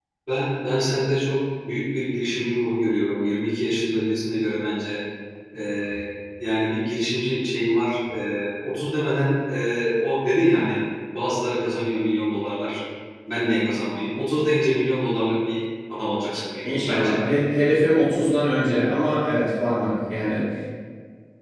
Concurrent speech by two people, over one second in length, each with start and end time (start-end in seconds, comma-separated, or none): none